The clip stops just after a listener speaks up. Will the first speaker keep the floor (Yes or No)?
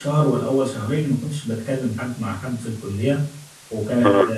Yes